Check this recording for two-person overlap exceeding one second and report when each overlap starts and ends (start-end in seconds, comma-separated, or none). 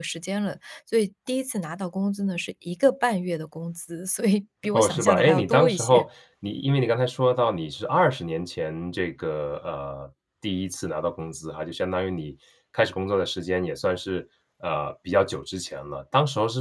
4.7-6.1